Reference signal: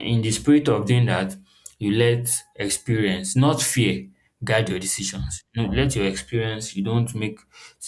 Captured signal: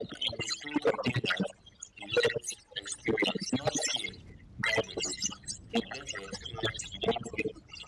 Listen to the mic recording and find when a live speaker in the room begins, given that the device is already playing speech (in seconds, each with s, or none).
none